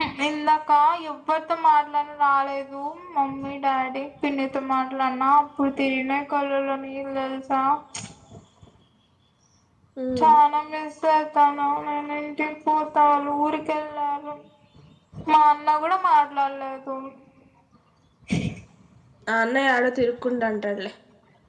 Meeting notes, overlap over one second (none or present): none